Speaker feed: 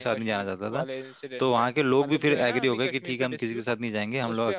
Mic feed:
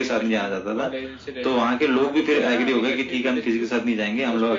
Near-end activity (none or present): none